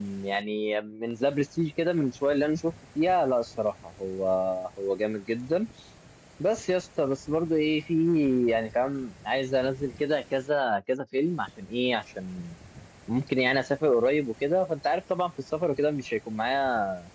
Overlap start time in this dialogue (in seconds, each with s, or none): none